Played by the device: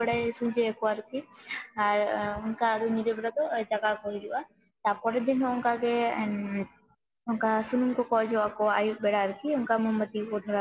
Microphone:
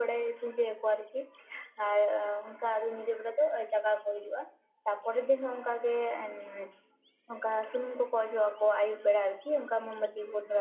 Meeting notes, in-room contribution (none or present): none